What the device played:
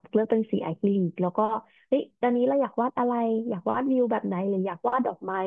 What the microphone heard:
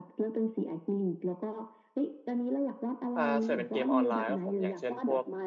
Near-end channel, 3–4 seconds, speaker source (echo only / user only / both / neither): both